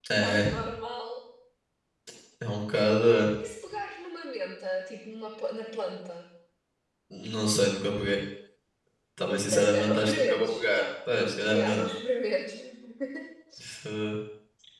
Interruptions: present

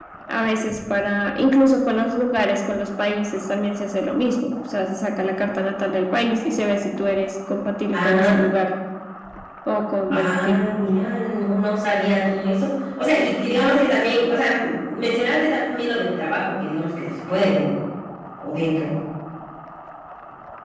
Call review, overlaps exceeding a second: none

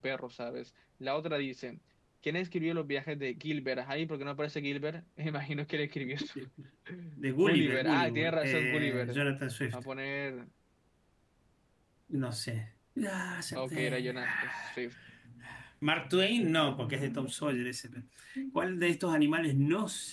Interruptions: present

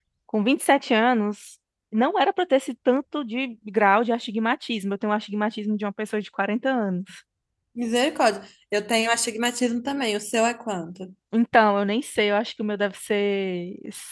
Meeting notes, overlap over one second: none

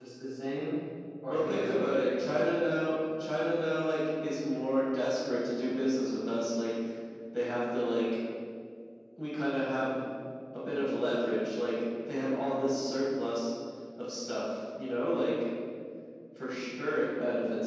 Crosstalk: present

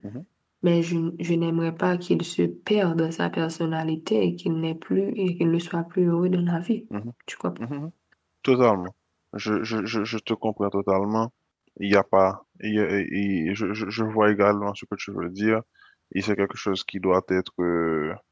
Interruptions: none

